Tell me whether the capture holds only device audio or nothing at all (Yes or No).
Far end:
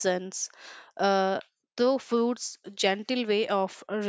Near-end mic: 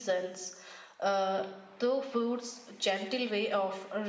Yes